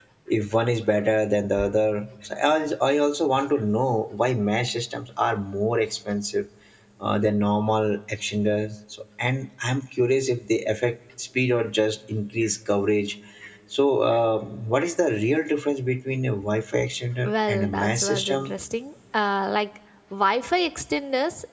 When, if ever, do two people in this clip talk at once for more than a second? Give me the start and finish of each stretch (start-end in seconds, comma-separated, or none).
17.2-18.5